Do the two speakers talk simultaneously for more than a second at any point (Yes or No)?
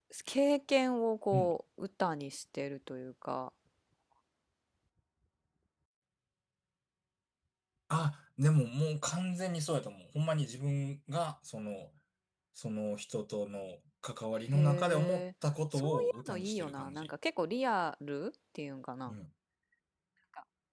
Yes